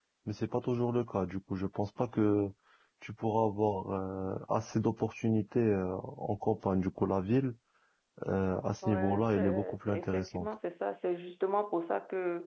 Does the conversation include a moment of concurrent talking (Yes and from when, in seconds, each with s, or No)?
Yes, from 8.9 s